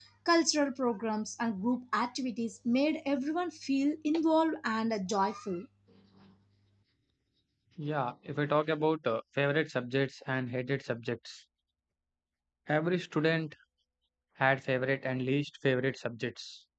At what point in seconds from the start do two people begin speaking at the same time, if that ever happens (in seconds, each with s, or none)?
none